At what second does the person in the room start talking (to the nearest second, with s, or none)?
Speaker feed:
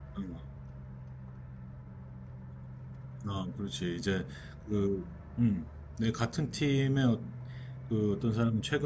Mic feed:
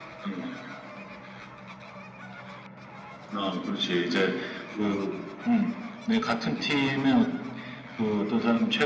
none